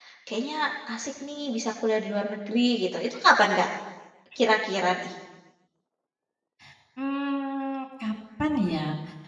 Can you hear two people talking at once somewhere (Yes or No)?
No